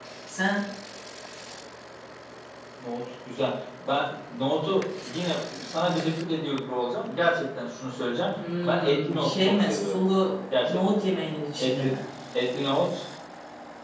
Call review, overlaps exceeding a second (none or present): present